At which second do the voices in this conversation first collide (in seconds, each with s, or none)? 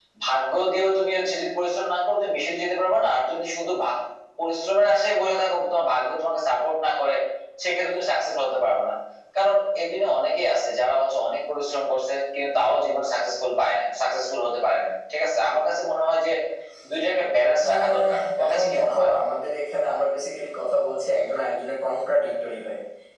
17.7 s